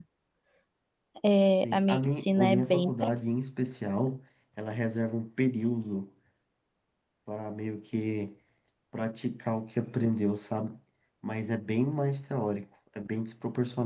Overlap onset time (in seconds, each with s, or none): 1.6 s